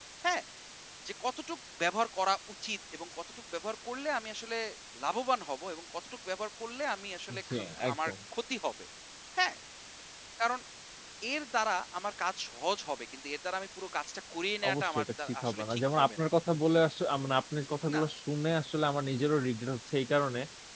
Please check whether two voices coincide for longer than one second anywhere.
Yes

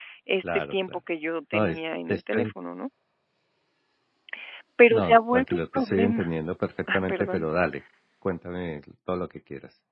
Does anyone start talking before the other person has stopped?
Yes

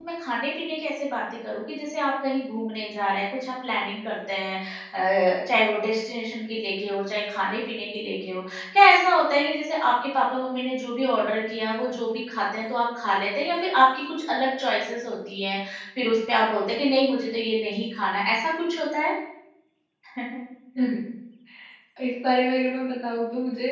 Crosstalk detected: No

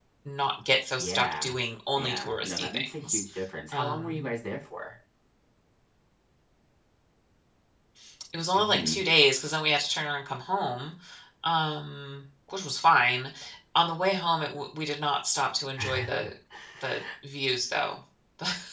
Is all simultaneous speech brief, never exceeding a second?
No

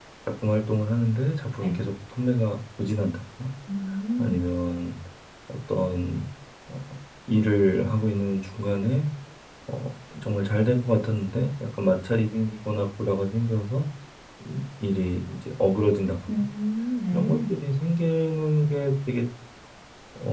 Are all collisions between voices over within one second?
Yes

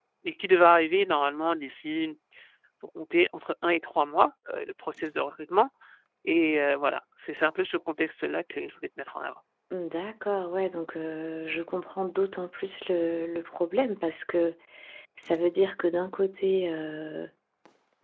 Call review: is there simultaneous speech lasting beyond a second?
No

